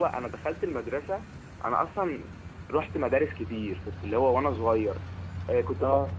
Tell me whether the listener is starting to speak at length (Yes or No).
No